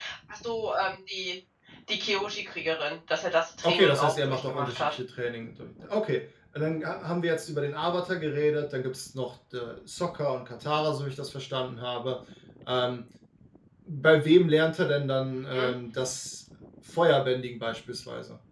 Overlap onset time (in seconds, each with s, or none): 3.6 s